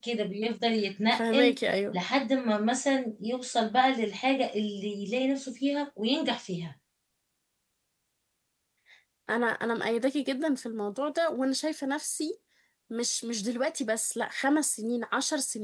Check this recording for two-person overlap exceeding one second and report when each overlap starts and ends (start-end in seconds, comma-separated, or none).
none